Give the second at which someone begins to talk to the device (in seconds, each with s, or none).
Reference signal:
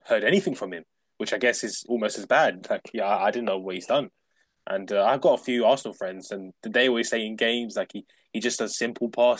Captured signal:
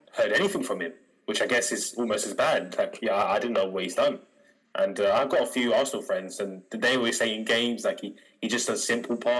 none